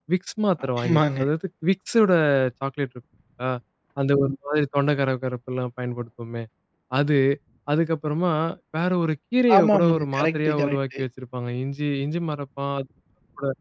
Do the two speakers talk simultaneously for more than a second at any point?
Yes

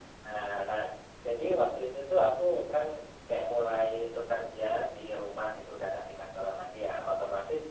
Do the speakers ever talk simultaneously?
No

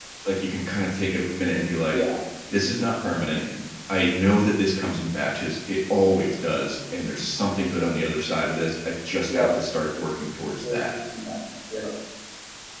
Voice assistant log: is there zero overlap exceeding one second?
Yes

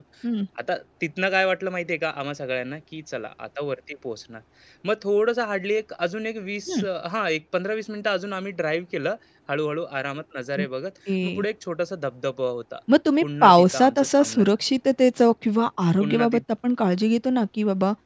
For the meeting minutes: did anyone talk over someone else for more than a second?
Yes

